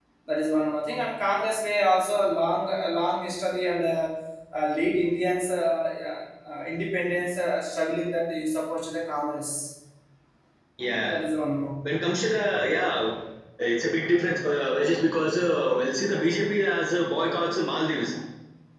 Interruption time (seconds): none

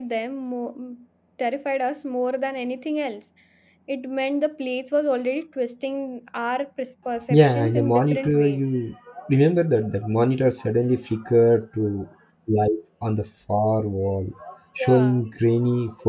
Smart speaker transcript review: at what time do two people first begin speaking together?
7.3 s

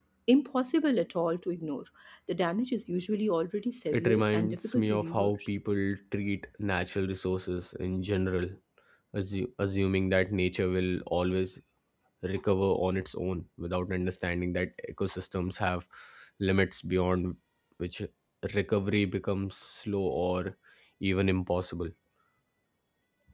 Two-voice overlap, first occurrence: 3.9 s

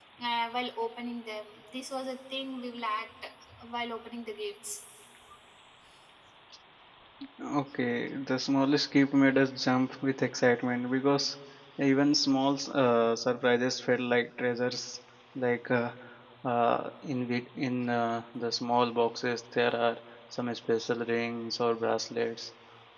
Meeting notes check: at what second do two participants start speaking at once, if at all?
none

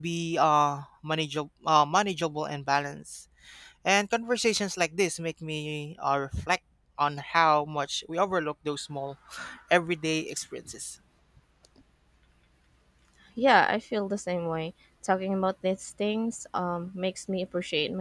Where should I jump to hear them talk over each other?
none

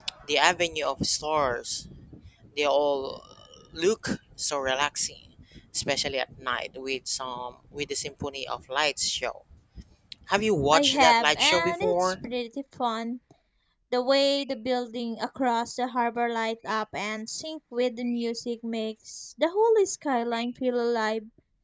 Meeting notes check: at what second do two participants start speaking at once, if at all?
10.7 s

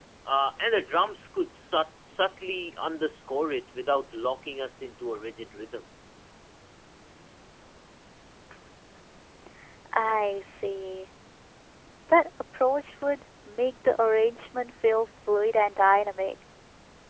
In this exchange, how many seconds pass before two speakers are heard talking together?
none

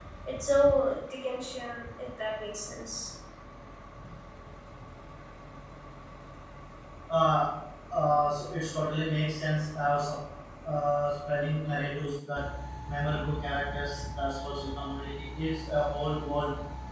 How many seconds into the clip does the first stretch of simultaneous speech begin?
none

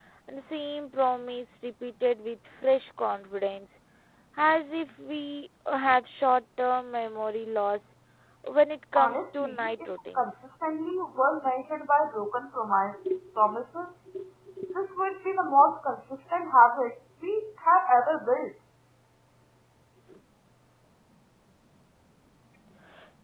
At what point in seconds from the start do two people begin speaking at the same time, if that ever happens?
9.0 s

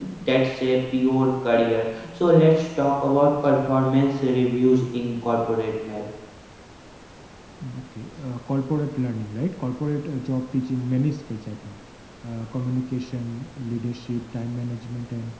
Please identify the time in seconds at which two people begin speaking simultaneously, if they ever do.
none

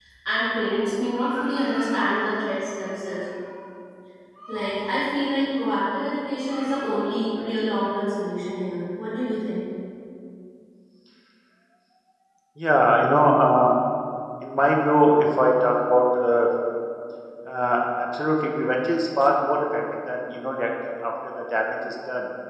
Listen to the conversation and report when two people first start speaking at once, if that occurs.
none

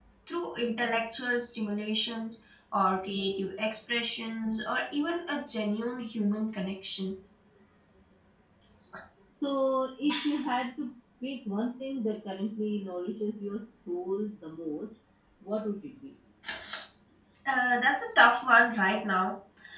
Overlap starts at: none

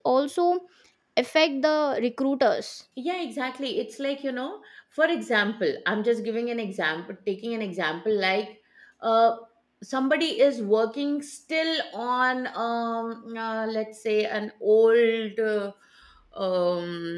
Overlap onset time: none

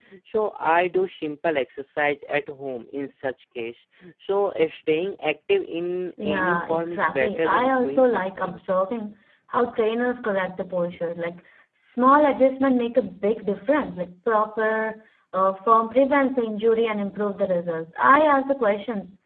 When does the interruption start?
6.2 s

